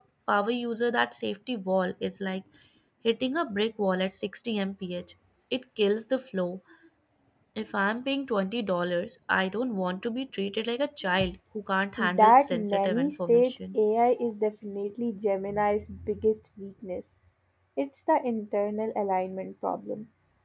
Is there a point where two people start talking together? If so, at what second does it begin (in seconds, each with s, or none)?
12.0 s